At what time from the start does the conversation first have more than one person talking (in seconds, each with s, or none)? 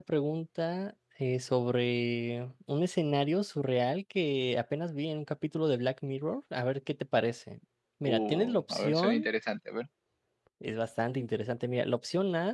8.0 s